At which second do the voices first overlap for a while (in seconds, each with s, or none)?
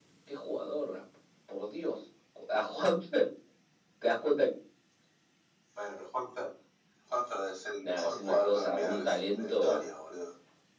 7.8 s